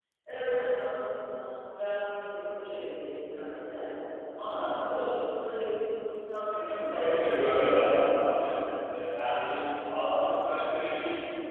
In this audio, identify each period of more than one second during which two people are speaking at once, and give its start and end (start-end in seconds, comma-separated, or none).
6.5-8.0